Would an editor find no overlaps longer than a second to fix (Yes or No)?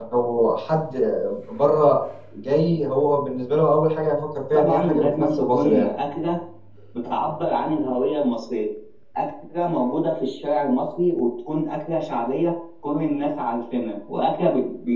No